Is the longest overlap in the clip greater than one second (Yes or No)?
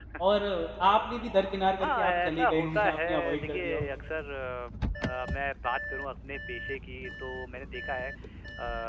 Yes